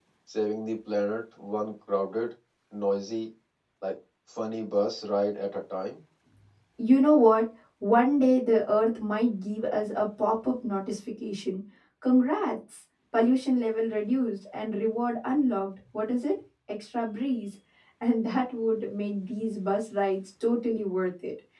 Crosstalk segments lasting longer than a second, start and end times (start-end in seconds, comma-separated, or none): none